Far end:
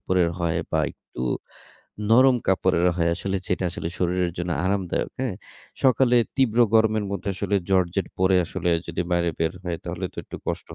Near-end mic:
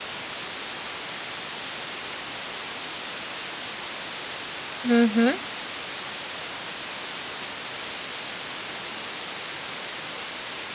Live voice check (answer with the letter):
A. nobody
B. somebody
B